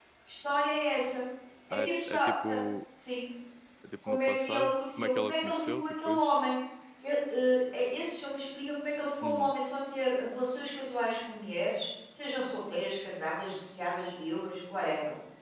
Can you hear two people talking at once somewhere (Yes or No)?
Yes